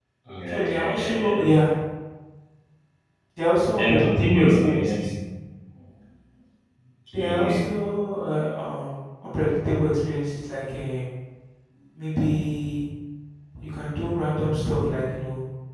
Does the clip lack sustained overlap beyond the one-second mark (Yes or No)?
No